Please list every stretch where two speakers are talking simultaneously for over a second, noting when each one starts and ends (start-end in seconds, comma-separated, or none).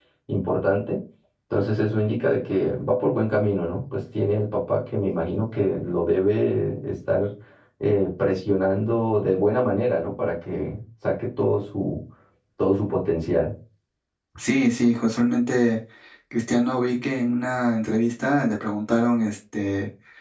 none